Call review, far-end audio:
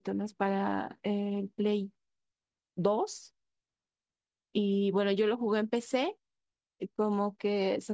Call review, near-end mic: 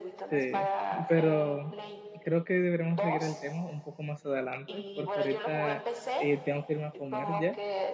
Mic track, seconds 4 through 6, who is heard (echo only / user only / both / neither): both